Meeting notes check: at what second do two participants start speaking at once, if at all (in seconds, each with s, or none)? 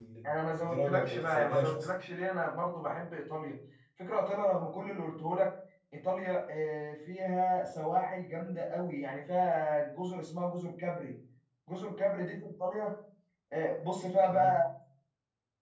0.6 s